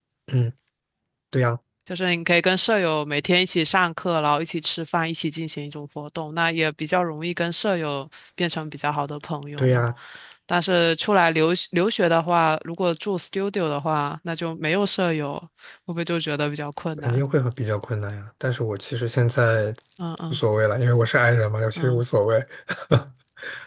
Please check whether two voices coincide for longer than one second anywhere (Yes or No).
No